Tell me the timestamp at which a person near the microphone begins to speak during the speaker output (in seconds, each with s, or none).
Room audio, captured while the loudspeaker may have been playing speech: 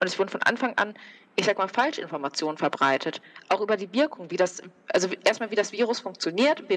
none